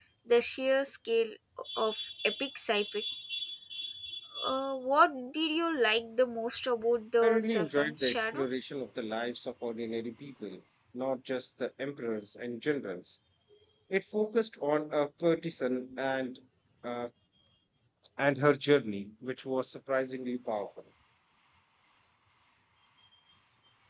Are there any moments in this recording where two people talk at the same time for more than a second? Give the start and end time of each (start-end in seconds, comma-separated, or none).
7.2-8.4